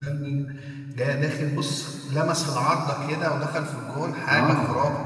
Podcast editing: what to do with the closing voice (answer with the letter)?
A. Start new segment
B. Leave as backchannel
A